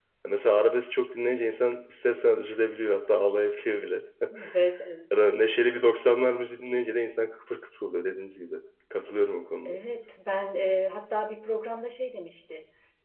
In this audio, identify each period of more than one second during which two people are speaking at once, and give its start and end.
none

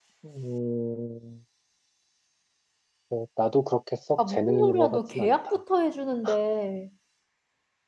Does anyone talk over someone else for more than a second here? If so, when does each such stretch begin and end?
4.3-5.5

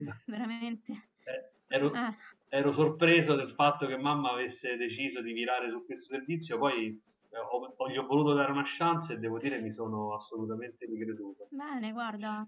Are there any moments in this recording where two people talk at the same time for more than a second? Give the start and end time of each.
none

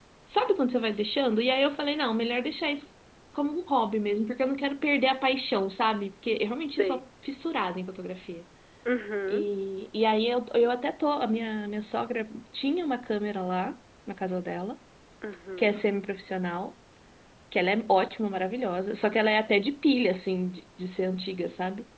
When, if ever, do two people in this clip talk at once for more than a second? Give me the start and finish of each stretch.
none

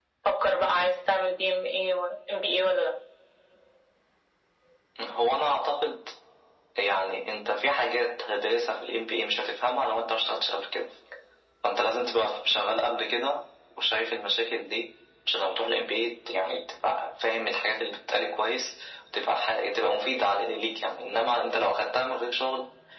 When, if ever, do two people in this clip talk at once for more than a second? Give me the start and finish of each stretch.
none

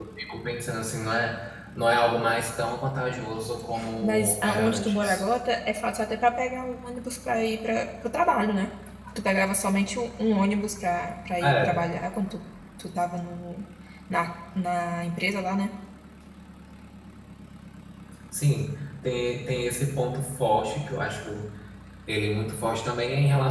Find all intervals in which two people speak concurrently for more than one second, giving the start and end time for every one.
4.0-5.2

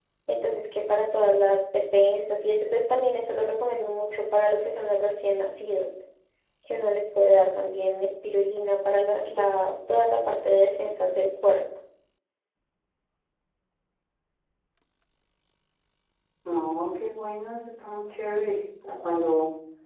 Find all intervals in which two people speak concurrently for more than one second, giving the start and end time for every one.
none

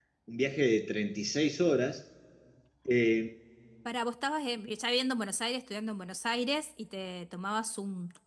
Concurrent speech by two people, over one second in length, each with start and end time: none

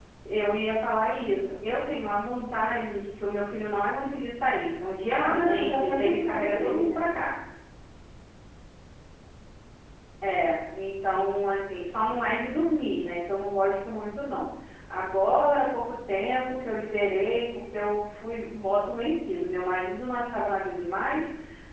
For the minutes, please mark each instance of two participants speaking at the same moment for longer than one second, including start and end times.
5.1-7.1

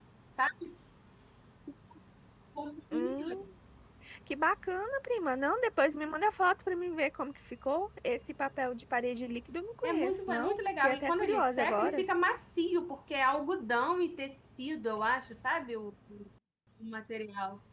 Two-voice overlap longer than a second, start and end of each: 9.8-12.0

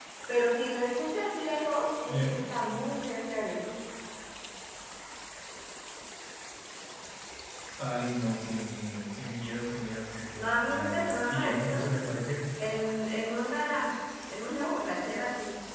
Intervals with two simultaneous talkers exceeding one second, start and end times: 10.4-11.9

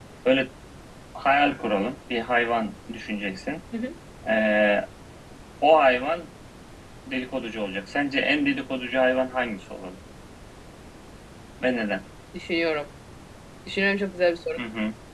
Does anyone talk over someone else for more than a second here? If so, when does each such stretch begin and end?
none

